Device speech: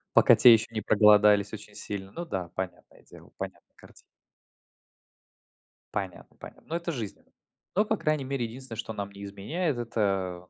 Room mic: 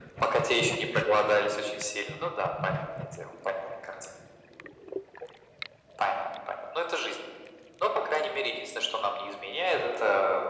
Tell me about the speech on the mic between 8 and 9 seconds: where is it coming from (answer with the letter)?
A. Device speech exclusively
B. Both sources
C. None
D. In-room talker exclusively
A